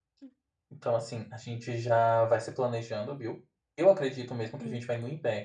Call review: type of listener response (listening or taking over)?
listening